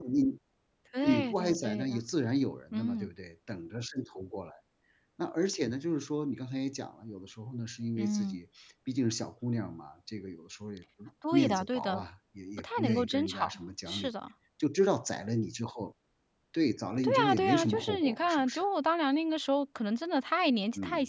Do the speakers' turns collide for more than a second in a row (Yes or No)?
Yes